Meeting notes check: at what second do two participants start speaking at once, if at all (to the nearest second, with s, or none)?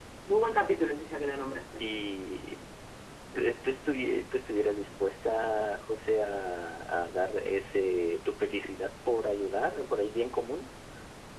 none